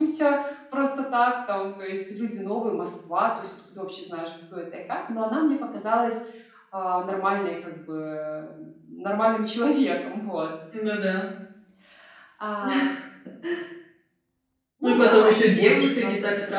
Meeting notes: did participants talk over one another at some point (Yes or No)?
Yes